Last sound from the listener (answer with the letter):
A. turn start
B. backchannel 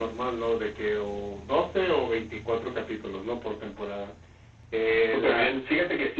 A